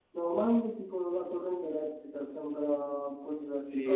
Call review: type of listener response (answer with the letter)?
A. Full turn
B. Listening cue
A